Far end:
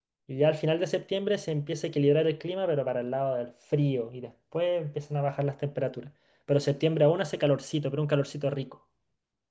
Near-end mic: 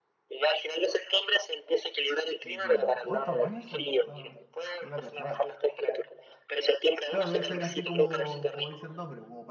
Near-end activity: present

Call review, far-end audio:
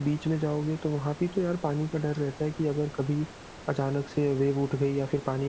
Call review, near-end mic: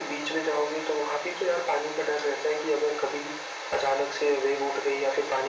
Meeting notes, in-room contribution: none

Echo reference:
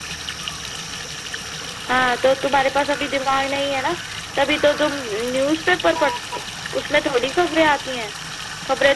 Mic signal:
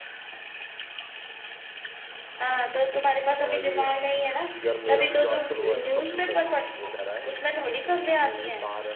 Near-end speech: present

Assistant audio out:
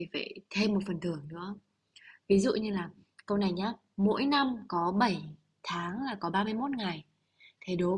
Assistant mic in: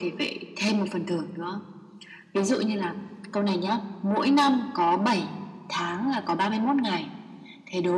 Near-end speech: none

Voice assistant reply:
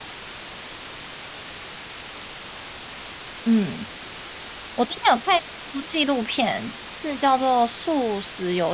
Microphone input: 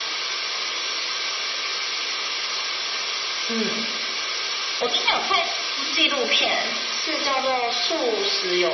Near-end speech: none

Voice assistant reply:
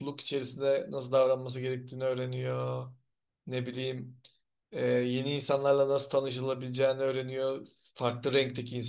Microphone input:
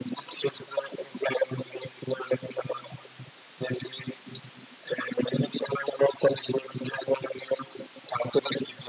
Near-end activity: none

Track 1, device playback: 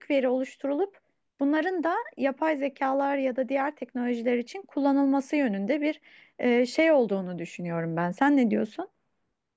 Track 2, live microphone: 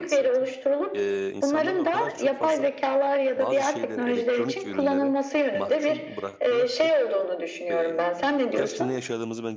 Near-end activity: present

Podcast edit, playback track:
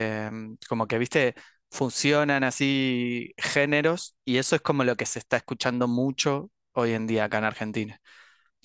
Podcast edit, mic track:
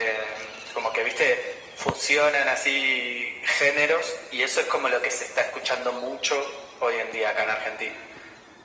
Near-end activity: none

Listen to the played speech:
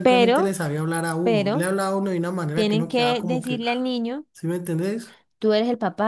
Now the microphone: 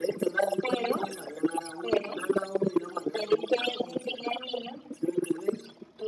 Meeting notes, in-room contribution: none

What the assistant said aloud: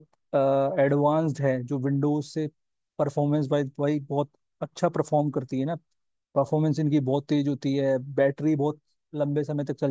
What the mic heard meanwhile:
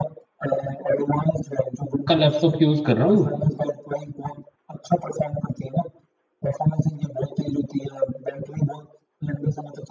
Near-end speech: present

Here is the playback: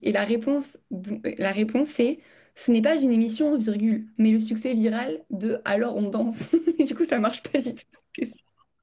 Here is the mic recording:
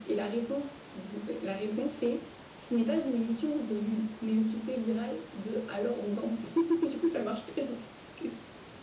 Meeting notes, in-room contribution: none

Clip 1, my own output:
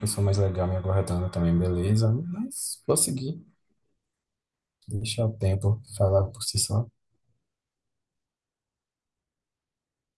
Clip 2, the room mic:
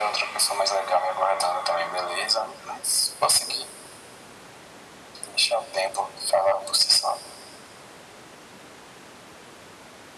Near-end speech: none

